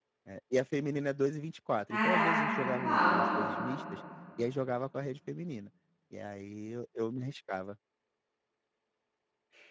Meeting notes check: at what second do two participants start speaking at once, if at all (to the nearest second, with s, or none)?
2 s